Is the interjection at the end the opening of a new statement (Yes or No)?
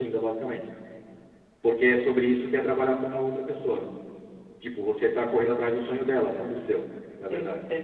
Yes